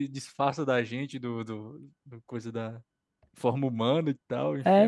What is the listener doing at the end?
taking over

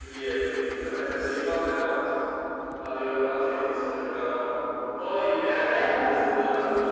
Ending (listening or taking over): listening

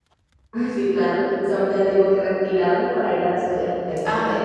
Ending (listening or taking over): taking over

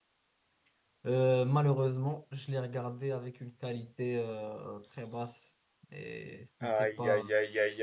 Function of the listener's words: taking over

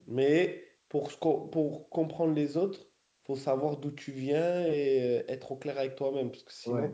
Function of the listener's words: taking over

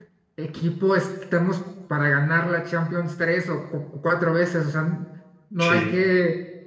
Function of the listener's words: listening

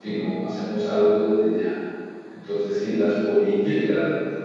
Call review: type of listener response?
listening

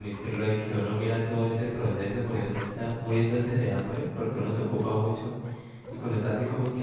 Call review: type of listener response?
listening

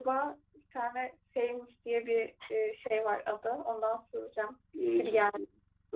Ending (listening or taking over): taking over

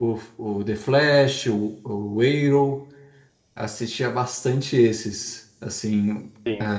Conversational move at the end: listening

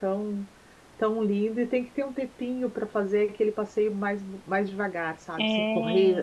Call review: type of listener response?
listening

